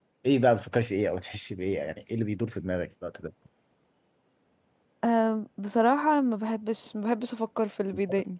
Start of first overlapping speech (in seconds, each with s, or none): none